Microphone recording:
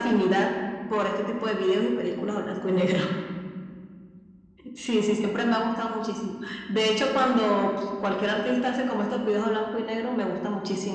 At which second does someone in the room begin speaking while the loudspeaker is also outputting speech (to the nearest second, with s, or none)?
none